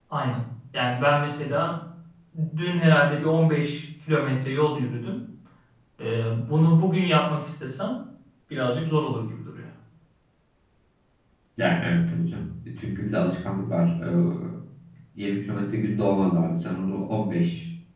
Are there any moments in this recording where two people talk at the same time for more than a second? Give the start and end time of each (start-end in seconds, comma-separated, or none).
none